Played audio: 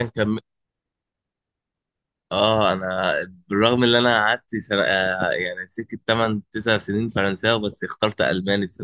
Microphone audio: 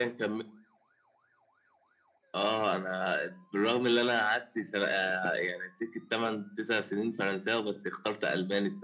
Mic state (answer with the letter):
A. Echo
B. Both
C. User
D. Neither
A